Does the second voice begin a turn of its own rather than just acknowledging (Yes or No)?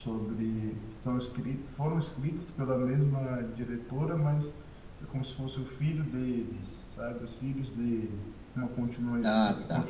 No